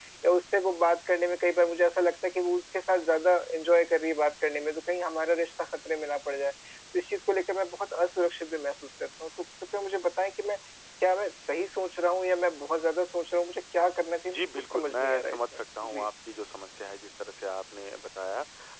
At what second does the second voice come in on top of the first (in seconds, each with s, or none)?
14.3 s